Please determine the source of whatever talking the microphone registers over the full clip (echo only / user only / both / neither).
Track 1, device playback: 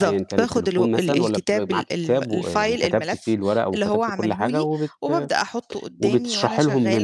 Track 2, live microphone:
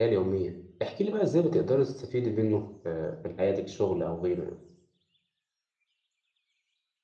user only